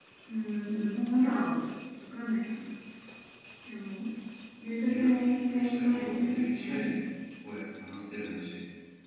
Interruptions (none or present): present